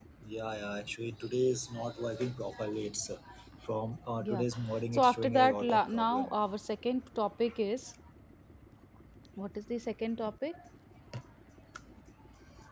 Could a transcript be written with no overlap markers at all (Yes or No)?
No